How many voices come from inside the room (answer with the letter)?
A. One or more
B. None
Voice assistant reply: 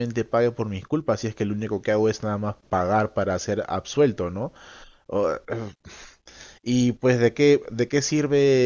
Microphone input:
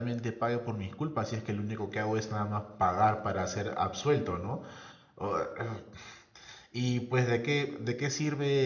B